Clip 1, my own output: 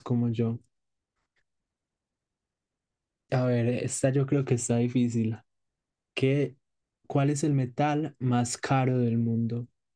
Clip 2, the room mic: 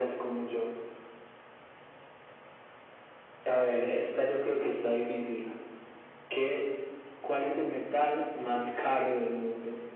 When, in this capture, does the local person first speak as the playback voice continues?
none

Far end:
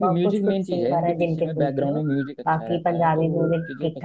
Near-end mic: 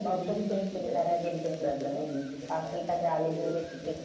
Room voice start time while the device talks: none

